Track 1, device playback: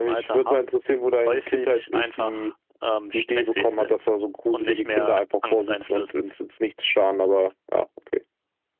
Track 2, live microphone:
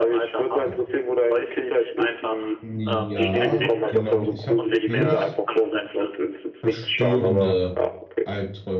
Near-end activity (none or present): present